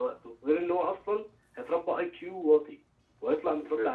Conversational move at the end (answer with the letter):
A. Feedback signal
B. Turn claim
A